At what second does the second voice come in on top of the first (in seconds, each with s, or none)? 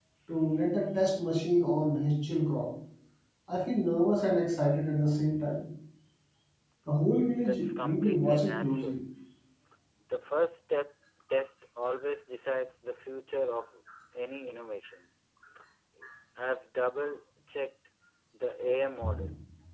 7.4 s